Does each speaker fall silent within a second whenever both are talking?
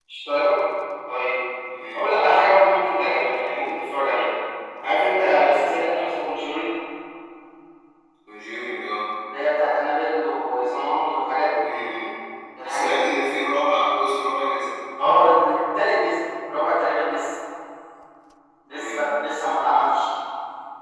Yes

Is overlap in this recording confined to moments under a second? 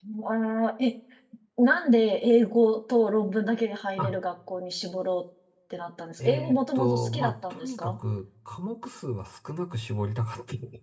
No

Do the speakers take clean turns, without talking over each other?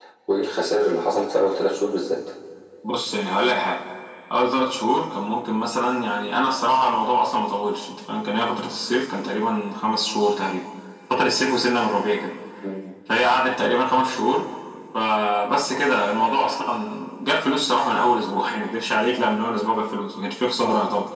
Yes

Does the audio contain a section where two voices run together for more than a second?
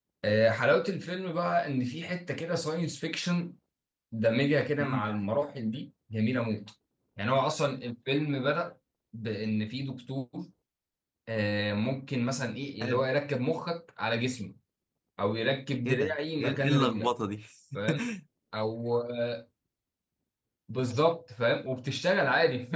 Yes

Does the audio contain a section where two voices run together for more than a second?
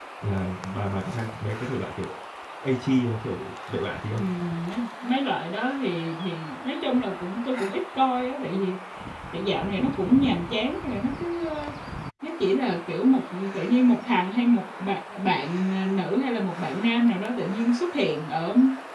No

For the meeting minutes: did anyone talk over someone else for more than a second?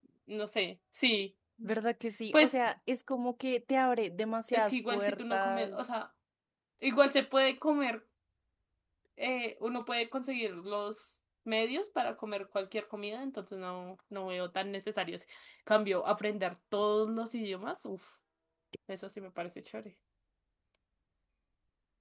Yes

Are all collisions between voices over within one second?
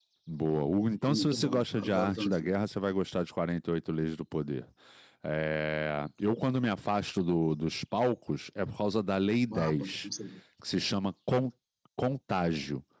No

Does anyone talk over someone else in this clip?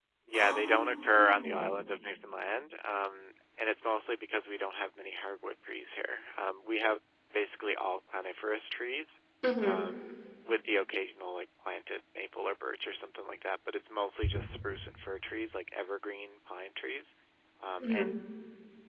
Yes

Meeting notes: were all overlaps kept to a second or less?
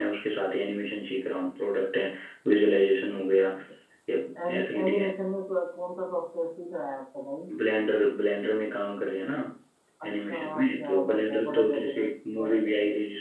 No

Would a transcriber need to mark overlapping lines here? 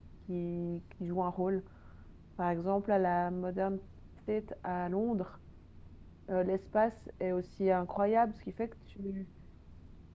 No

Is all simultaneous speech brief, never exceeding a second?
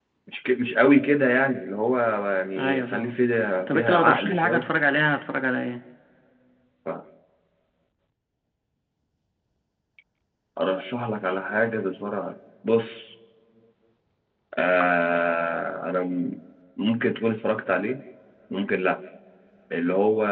No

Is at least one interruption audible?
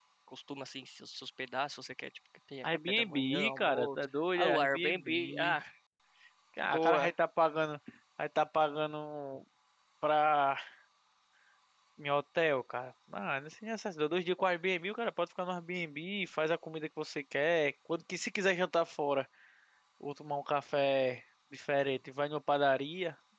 Yes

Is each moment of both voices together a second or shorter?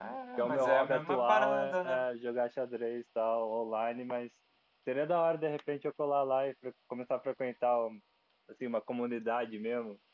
No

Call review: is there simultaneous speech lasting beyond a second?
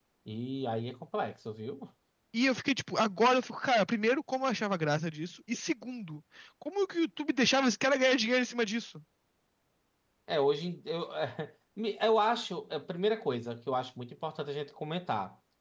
No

